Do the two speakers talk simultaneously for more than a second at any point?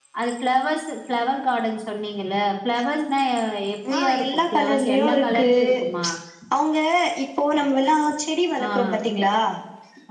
Yes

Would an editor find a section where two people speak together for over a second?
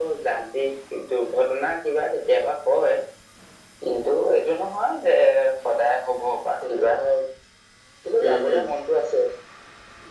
No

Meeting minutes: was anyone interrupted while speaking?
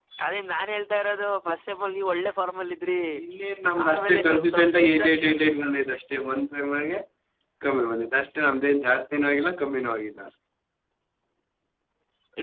Yes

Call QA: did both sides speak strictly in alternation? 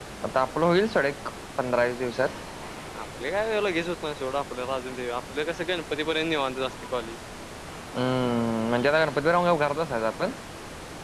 Yes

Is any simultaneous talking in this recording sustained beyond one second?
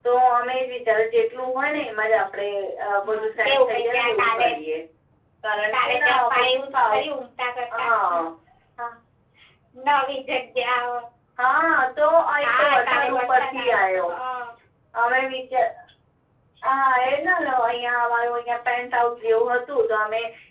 Yes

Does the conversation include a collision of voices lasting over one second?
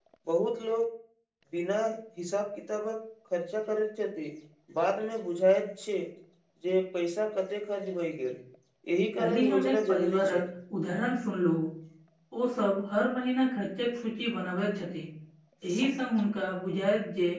Yes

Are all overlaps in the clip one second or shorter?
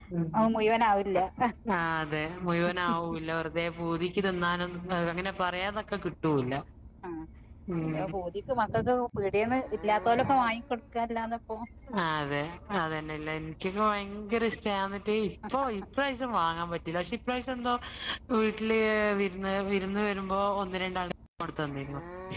Yes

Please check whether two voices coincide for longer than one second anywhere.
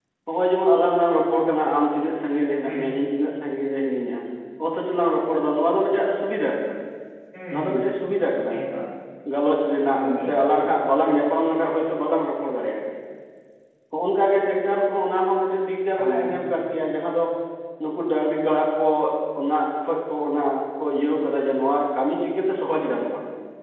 No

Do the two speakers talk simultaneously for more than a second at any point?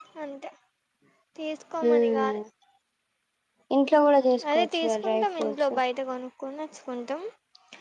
Yes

